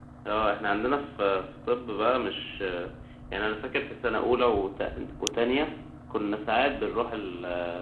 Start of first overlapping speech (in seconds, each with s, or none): none